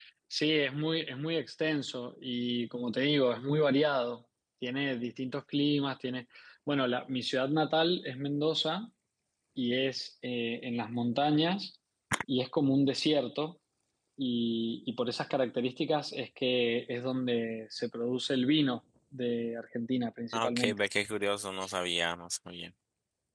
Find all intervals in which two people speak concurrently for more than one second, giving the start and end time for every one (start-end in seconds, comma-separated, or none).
none